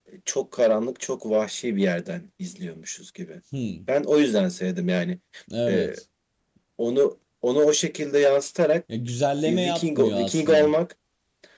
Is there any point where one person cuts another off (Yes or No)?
Yes